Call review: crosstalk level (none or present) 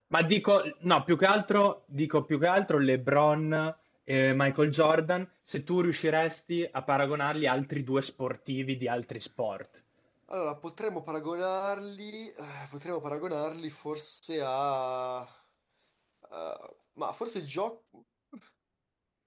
none